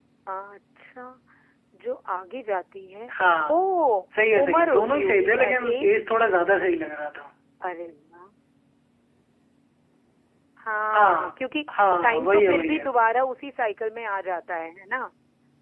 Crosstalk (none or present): present